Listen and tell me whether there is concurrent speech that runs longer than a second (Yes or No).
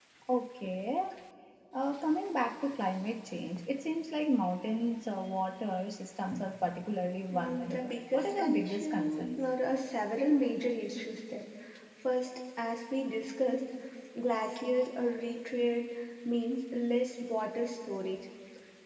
Yes